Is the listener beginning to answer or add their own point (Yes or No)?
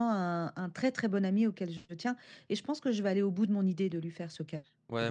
Yes